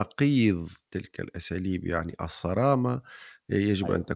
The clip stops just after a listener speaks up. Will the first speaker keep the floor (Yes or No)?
Yes